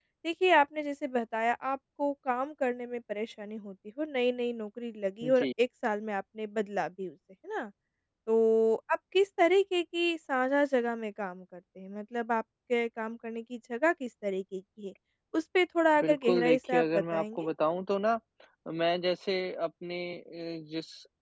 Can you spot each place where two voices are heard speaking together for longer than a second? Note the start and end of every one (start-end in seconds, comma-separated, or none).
16.0-17.5